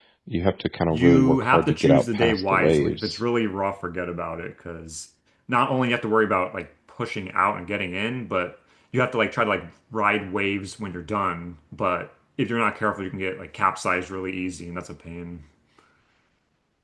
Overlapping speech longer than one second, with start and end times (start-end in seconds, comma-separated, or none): 0.9-3.2